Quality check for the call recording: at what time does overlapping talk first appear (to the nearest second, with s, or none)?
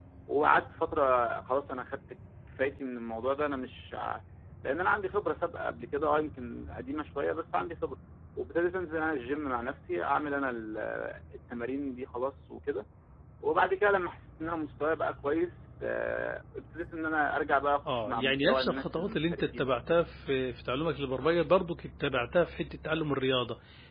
18 s